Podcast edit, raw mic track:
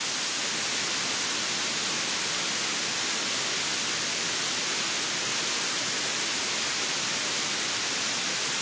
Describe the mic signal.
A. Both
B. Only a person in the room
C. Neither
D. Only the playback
C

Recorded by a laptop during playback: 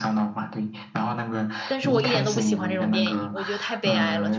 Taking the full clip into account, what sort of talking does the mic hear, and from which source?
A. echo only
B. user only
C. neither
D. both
D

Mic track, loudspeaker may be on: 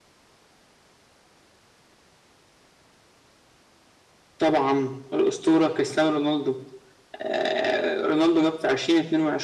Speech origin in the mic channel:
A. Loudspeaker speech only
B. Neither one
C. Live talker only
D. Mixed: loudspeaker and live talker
A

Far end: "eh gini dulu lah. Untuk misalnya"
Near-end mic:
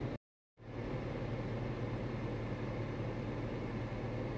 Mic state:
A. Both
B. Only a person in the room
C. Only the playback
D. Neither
D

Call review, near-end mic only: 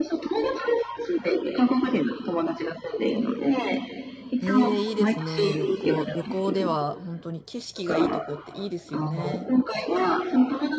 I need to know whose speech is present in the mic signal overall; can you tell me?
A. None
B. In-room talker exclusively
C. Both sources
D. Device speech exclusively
C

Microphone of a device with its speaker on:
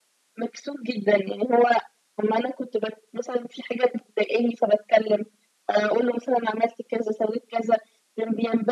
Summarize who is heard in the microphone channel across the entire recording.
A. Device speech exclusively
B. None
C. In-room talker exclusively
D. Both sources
A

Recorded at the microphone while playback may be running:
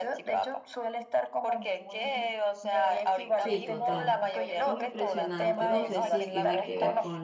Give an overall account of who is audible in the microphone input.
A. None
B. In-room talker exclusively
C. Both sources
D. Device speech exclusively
C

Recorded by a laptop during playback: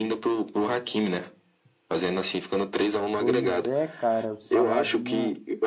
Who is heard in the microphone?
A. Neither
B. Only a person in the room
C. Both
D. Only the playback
C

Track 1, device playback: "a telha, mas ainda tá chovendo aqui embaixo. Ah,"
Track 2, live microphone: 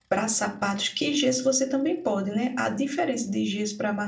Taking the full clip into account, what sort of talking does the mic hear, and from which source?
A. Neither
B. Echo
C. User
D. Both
C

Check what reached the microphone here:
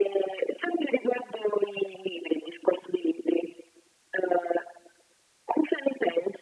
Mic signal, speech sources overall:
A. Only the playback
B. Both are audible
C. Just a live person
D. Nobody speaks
A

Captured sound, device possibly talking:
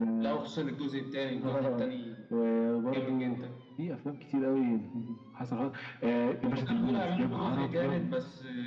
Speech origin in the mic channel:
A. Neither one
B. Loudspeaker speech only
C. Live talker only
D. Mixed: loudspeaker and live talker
B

